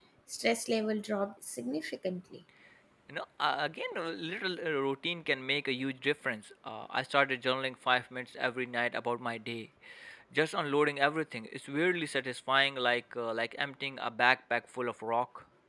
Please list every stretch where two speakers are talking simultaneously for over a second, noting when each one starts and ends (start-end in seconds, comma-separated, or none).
none